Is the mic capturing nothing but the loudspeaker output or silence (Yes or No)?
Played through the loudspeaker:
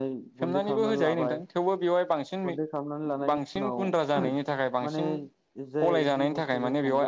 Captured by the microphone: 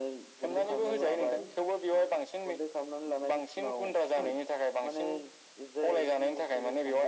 No